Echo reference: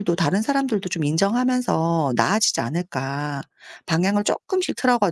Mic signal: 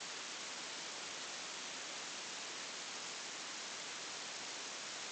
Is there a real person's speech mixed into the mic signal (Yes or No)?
No